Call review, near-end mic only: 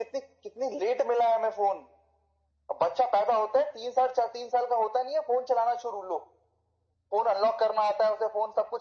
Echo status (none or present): present